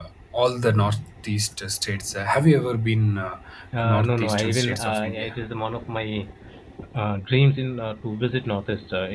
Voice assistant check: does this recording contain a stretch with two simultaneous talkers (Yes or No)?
Yes